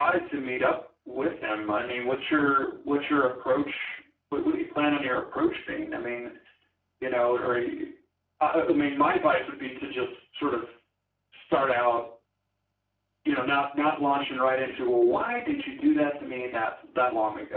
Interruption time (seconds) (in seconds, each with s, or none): none